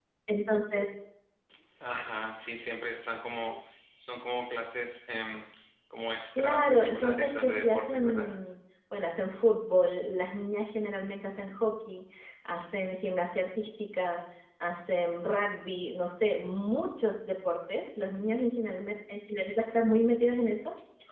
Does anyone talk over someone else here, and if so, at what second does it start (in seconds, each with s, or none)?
6.4 s